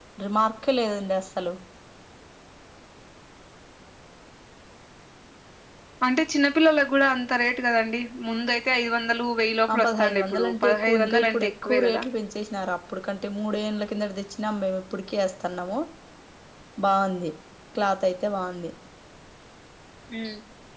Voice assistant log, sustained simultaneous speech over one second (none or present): present